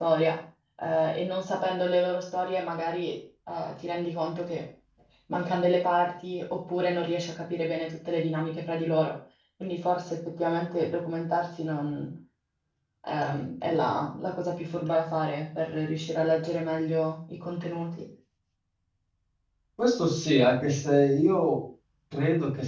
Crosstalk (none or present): none